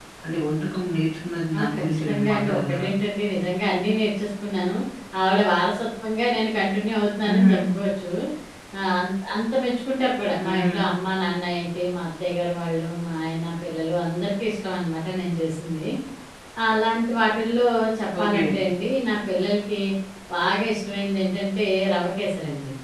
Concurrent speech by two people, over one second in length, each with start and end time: 1.6-2.9

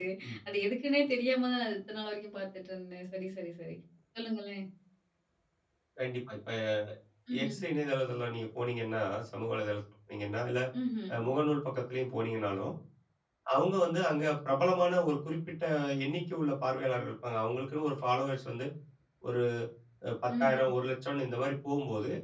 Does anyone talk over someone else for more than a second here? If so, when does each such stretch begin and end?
none

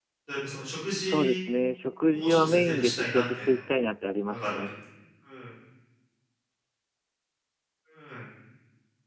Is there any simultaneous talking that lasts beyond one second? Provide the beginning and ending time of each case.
2.1-3.5

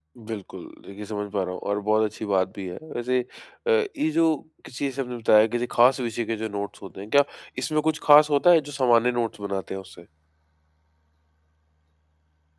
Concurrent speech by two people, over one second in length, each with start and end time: none

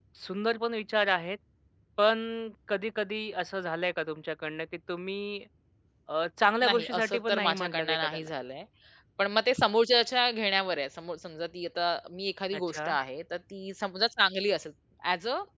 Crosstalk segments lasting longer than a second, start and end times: 6.6-8.3

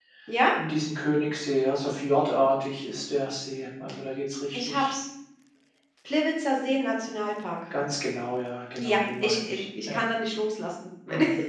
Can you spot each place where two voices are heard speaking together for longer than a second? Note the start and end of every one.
8.8-10.0

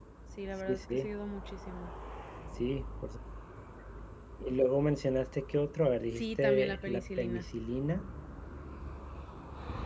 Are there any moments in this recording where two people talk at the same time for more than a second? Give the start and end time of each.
6.2-7.4

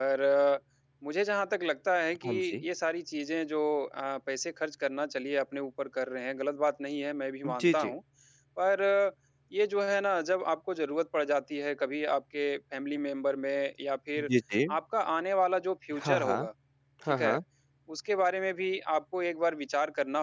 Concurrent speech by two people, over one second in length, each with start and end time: none

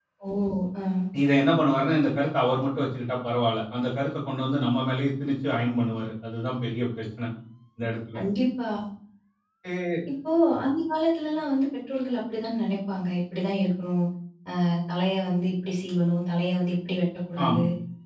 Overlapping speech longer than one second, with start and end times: none

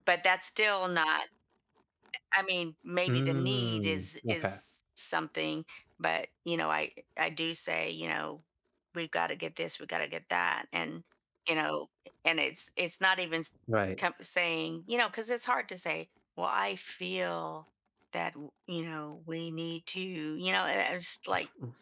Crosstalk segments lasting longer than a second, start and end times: 3.1-4.6

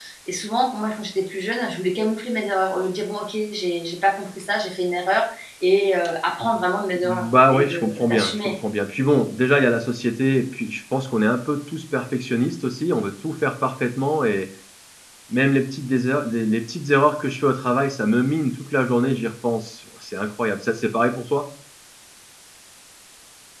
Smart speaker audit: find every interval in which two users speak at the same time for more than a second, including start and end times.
7.1-8.6

